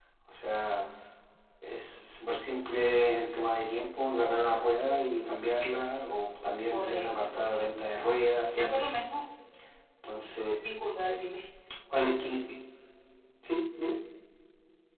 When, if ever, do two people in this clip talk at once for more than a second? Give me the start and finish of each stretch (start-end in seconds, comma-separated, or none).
6.7-8.0